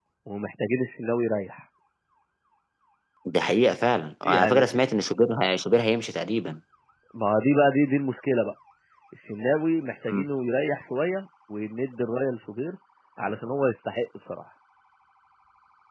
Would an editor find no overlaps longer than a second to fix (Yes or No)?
Yes